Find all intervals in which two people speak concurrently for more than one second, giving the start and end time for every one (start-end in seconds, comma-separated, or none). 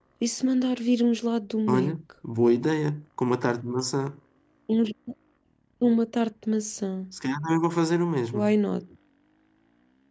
none